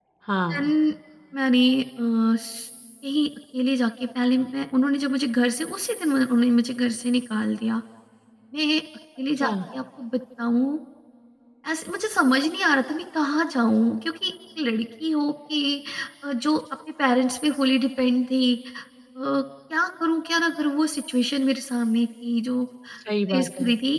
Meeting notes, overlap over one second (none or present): none